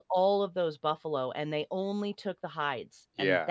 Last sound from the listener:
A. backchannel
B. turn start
A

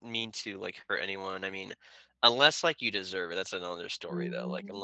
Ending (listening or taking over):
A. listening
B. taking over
B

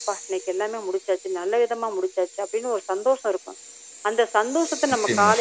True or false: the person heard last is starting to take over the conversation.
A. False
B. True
A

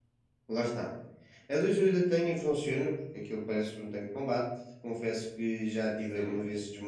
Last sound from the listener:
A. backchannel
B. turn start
A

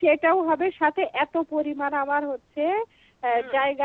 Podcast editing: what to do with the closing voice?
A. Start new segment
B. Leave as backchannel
B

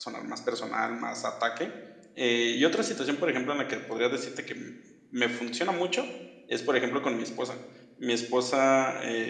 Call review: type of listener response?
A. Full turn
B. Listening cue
B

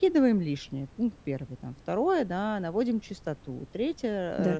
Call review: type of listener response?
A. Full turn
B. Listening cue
B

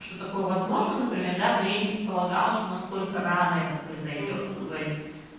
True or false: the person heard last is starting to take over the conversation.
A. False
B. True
A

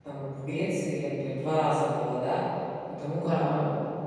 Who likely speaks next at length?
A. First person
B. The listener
A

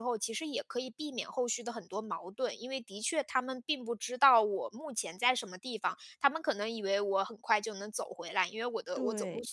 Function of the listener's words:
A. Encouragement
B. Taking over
A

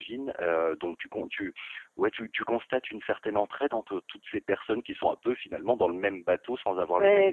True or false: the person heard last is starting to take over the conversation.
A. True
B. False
A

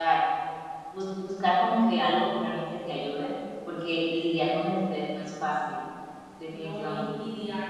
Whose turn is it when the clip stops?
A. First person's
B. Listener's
B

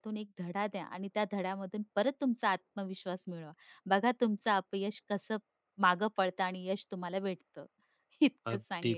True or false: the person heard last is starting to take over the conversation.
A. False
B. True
B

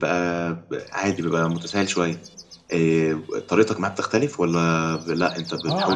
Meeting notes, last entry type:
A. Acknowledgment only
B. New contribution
B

